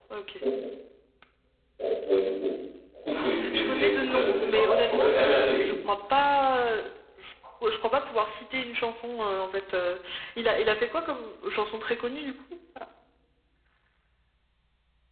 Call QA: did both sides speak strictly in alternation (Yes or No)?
No